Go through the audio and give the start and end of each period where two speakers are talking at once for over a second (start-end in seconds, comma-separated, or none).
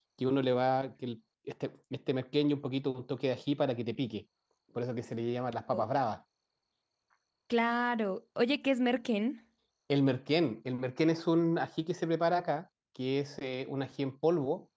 none